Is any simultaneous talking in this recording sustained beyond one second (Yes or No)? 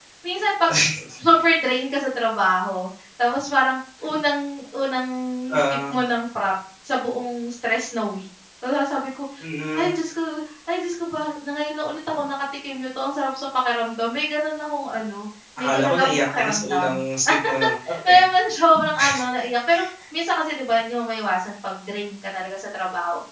Yes